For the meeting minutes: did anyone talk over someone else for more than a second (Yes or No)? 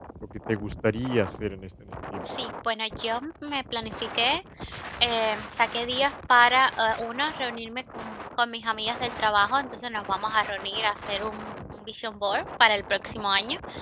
No